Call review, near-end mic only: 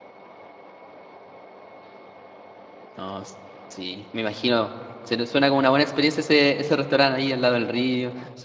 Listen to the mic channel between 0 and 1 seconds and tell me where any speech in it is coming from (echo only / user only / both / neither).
neither